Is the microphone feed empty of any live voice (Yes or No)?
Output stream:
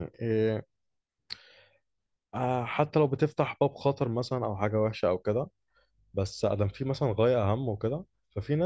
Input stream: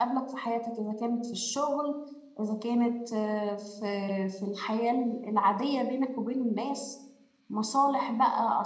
No